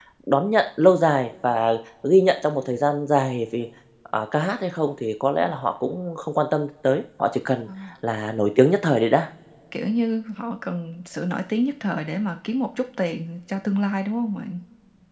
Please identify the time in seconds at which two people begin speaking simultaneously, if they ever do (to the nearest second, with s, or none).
none